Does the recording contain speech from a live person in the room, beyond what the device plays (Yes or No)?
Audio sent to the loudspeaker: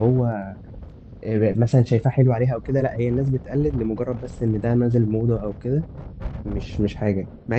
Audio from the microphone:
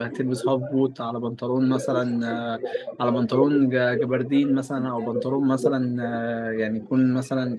Yes